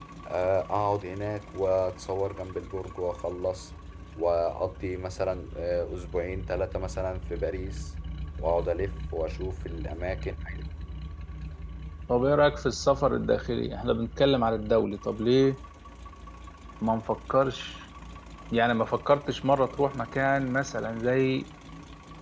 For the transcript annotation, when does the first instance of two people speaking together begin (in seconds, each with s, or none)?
none